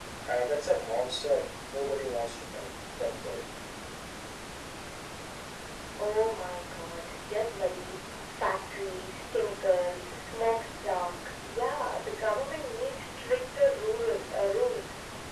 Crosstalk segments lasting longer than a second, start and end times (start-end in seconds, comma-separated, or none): none